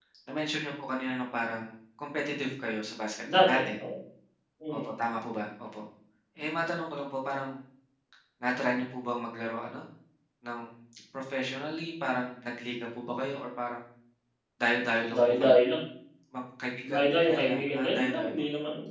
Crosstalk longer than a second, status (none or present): present